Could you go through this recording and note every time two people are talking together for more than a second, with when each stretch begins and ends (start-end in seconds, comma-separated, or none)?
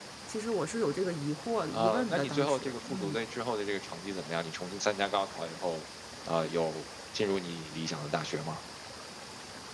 1.7-3.2